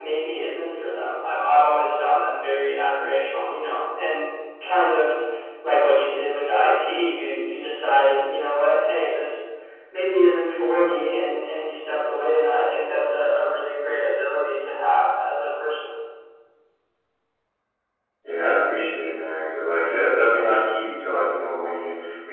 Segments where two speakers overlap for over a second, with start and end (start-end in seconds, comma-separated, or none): none